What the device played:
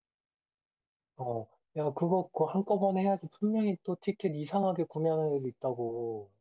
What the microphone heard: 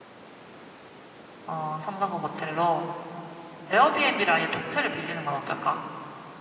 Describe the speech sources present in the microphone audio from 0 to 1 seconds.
neither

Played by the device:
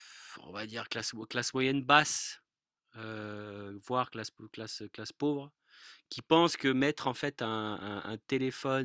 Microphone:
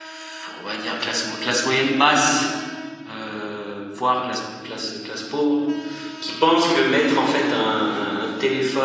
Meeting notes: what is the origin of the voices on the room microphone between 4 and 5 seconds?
echo only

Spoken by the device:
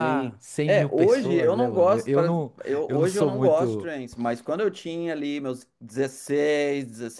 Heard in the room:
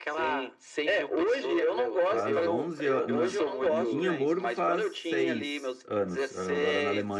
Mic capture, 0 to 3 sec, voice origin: both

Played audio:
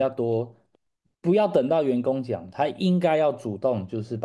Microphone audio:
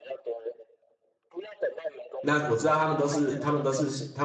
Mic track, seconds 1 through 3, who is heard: both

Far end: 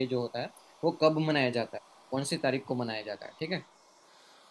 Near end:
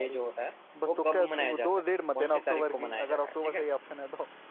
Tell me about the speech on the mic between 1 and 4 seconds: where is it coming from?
both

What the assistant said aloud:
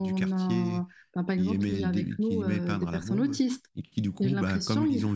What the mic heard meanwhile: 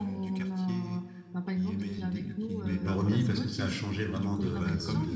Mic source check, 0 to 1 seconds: echo only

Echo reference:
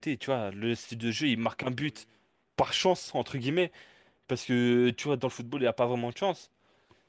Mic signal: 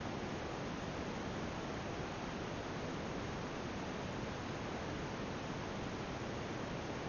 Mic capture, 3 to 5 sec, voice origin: neither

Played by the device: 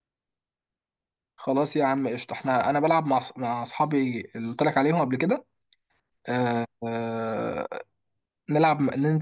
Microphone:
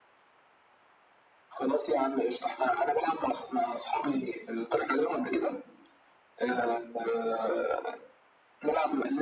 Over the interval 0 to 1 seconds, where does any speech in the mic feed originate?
neither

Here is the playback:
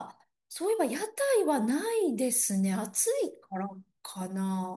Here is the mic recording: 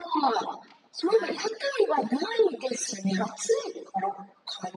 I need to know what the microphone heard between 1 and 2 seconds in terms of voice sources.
both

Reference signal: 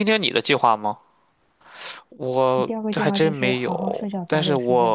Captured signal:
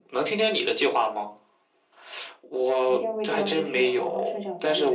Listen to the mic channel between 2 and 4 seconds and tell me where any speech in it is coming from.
echo only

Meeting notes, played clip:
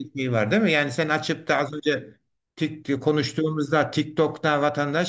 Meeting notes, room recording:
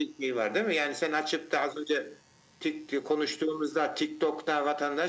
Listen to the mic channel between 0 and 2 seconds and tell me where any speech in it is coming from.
echo only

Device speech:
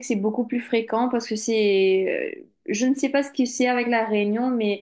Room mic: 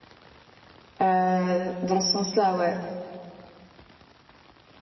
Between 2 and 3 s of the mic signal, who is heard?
user only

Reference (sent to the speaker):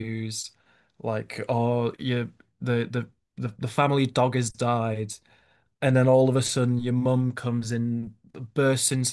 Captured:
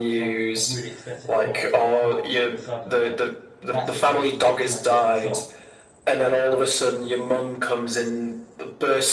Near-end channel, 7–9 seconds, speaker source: echo only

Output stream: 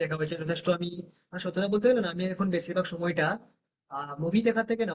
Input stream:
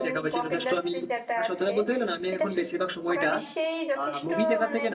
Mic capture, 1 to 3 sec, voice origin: both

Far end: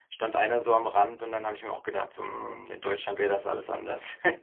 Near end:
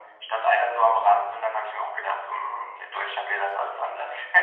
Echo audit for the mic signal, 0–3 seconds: echo only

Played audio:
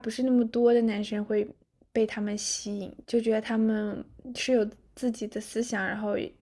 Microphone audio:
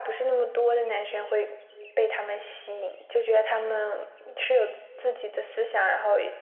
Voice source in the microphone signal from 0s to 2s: echo only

